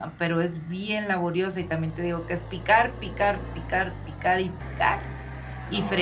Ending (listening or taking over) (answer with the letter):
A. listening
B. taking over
A